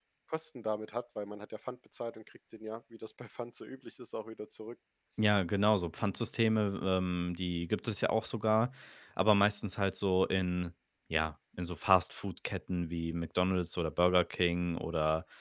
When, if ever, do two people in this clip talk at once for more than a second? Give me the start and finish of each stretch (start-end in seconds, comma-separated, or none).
none